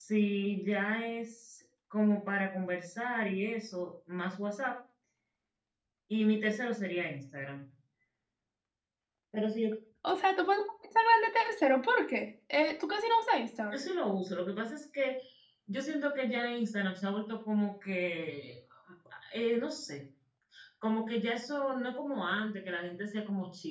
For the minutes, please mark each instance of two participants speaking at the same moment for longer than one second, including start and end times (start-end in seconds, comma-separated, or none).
none